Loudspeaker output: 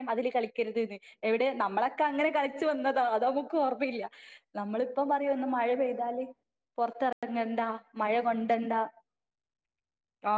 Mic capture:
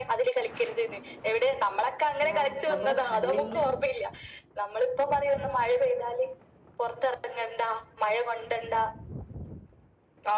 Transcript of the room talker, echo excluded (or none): ആ നമ്മടെ കണ്ണിൻ്റെ